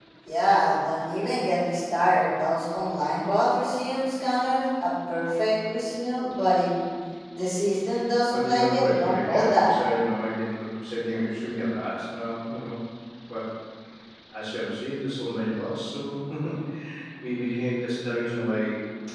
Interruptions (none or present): present